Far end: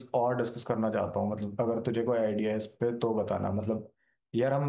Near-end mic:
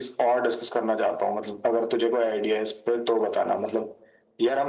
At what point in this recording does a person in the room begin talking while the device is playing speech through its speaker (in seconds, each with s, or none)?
none